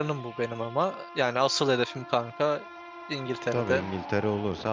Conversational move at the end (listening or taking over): taking over